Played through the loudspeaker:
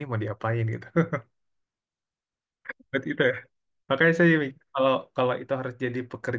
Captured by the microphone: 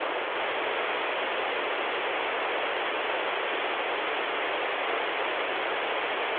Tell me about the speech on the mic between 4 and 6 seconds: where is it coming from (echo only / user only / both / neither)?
neither